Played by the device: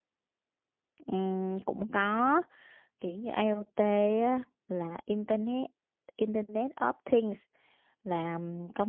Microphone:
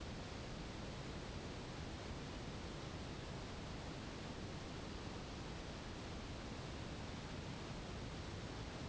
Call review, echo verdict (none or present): none